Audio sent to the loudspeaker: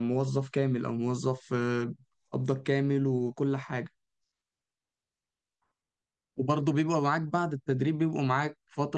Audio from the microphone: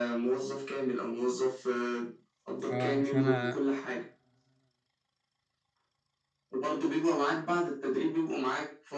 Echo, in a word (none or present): present